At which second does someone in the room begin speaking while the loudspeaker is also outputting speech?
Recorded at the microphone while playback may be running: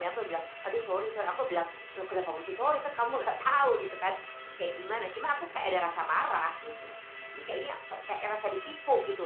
none

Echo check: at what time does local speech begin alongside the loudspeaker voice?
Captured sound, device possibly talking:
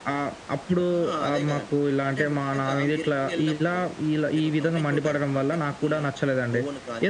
none

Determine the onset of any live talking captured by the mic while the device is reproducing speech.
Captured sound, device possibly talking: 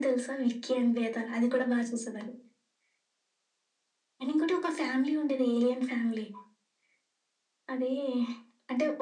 none

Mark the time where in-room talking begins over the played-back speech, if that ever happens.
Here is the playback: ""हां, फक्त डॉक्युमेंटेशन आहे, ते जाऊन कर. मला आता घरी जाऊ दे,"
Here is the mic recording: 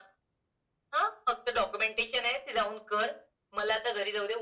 none

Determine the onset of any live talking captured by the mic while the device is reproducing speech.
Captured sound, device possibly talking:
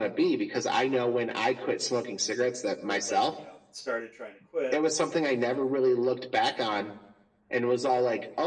2.9 s

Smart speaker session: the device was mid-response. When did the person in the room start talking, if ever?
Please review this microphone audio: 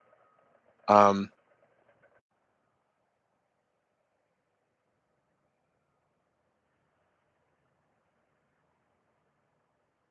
0.9 s

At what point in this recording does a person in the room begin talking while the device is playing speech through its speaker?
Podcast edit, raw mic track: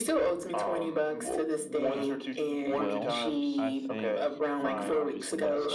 1.8 s

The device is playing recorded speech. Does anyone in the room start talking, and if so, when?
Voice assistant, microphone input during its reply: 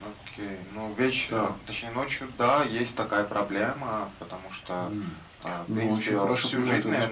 none

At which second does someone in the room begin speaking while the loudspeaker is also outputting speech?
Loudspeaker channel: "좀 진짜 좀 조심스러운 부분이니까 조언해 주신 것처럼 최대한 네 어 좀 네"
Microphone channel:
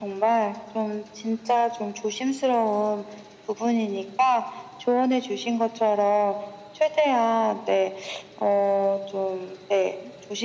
none

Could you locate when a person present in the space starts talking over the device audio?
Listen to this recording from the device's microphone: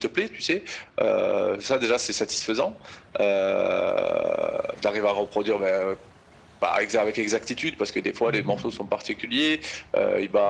8.2 s

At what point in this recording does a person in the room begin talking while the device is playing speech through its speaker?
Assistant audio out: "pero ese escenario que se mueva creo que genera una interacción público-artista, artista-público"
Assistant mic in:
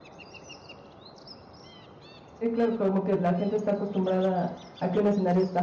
2.2 s

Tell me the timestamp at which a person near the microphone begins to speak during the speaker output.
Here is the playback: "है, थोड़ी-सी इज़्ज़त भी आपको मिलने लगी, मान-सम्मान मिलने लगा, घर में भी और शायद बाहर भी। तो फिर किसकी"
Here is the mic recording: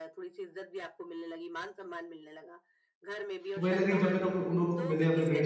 3.5 s

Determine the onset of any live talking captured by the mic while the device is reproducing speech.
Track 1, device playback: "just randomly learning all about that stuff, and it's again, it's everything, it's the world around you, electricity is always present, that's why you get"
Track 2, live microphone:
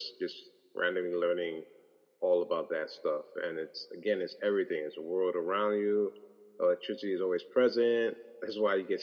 none

